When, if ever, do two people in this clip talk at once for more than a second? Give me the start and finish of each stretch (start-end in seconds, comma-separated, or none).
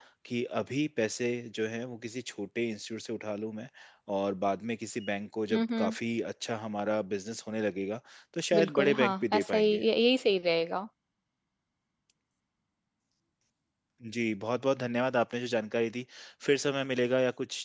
8.6-9.8